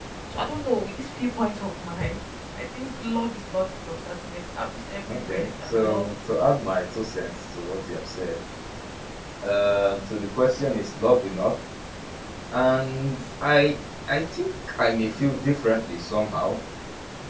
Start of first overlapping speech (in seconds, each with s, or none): 5.1 s